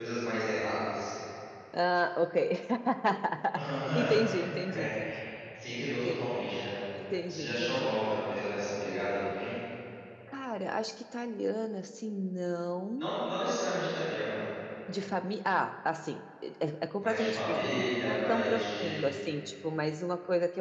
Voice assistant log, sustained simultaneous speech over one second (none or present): present